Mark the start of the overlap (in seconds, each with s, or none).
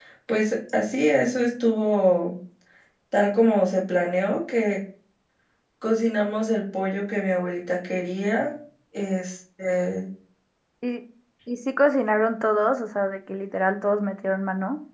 none